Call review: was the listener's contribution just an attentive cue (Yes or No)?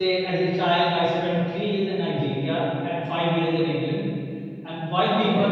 Yes